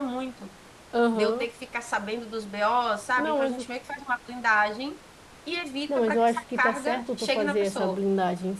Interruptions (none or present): present